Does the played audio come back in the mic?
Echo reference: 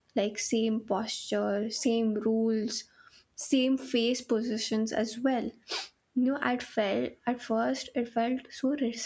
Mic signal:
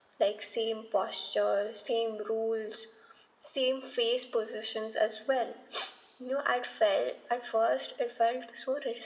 Yes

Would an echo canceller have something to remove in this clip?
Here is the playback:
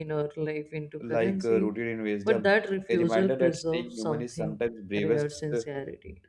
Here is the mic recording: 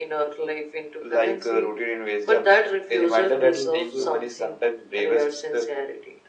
Yes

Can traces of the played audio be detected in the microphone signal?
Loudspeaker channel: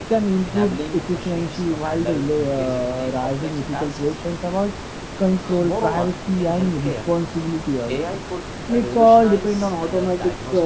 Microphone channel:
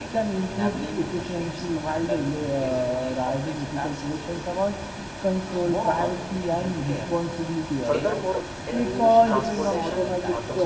Yes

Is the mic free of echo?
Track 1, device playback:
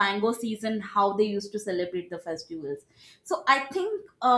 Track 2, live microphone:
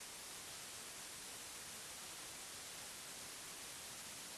Yes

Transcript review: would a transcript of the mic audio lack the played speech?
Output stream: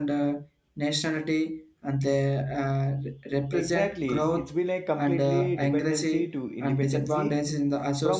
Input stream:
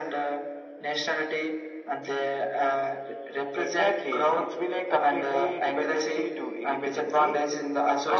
No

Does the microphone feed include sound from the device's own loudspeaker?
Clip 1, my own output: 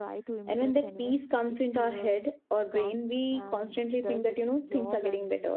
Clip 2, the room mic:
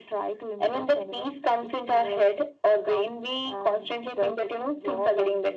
Yes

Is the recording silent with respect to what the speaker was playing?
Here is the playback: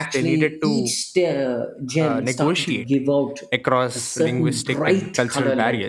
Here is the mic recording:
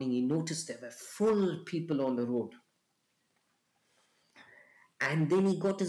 Yes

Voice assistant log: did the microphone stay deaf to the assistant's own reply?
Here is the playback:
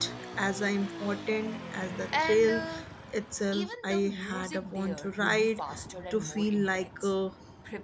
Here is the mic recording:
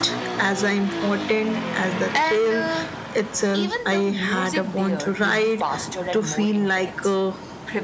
No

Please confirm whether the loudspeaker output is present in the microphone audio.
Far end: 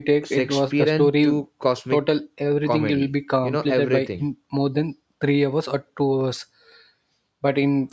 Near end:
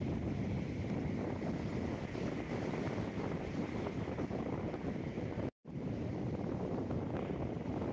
No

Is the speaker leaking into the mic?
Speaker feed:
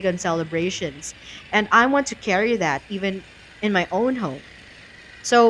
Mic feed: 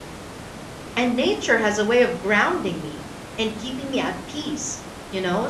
No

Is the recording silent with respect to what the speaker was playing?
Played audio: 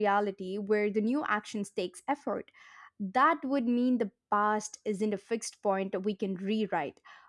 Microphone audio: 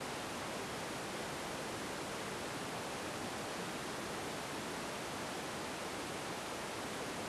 Yes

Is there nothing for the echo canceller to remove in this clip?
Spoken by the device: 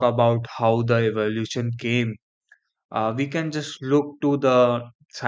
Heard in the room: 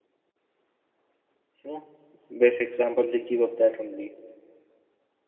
Yes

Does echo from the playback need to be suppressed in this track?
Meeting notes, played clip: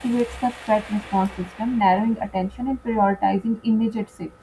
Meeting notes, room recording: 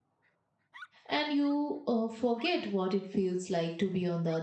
No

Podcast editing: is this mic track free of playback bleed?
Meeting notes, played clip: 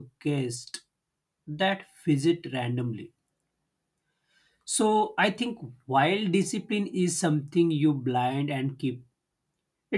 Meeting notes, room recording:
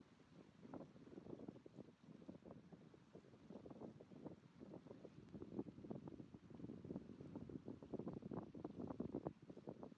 Yes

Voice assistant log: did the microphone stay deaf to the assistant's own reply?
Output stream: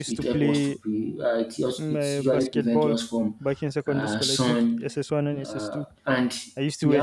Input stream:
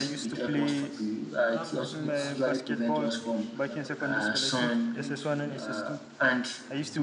No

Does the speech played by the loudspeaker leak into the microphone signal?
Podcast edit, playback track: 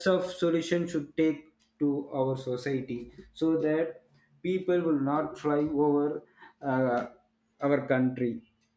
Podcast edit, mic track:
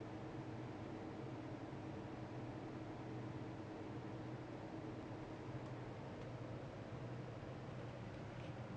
No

